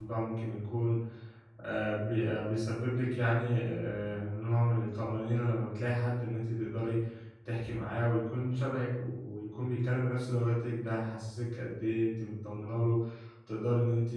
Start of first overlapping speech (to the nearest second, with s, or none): none